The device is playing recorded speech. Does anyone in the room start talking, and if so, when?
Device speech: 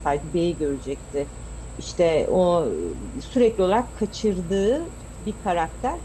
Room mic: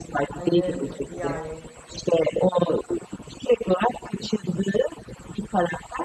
0.4 s

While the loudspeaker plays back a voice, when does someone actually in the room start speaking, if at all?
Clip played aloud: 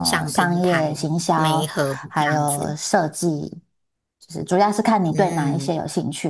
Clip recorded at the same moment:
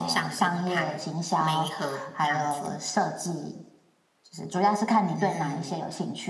none

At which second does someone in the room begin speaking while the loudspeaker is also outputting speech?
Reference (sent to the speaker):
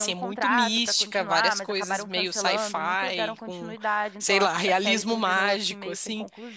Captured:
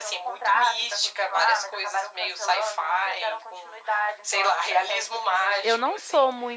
5.6 s

